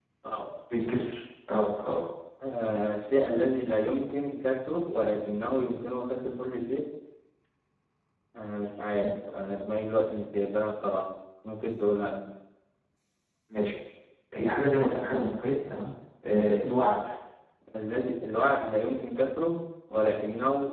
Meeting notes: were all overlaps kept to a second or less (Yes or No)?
Yes